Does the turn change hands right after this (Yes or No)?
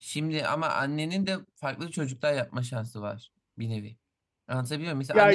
No